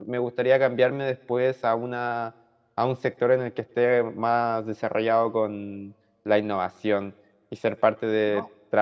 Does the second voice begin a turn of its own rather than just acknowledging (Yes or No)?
No